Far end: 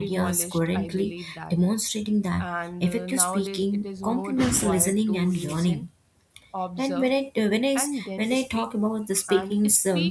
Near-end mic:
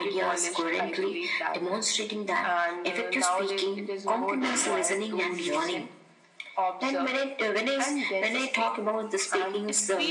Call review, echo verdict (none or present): present